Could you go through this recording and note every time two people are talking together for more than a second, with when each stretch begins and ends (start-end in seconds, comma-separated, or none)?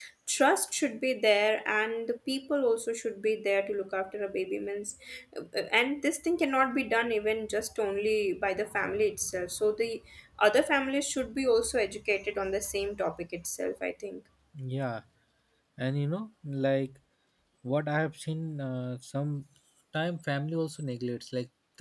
none